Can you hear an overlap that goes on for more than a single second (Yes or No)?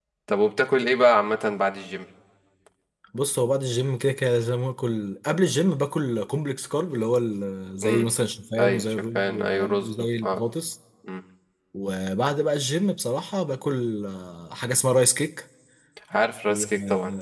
Yes